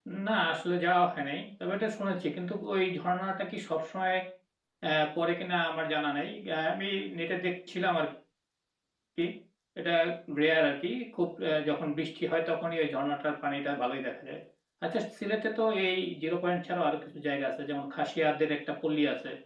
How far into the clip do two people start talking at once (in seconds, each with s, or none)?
none